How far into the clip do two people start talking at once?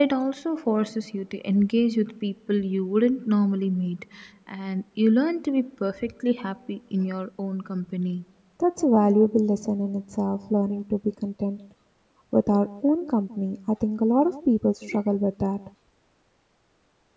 none

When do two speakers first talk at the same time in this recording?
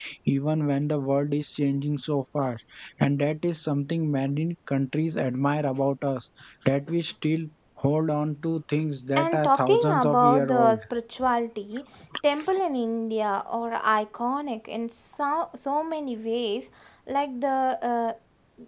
9.2 s

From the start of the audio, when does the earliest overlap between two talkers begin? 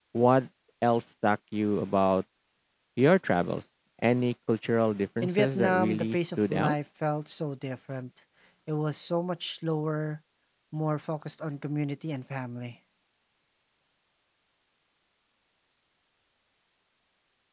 5.2 s

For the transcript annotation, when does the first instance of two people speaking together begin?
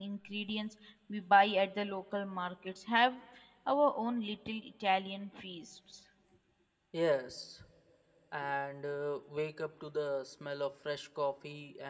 none

